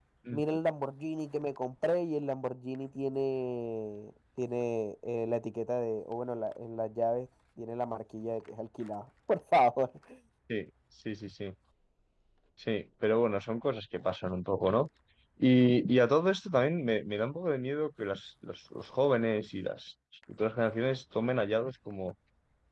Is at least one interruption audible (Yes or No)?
No